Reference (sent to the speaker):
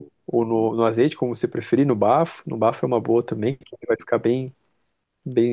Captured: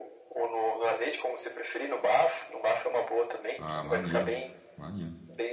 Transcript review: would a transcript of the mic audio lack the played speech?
No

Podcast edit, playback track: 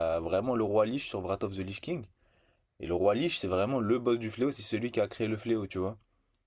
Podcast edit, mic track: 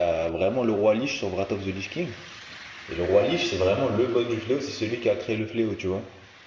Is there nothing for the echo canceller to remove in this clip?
No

